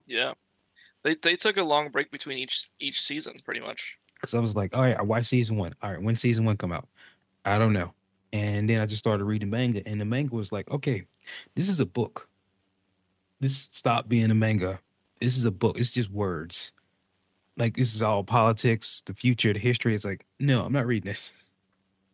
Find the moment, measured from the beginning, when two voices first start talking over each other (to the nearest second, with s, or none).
none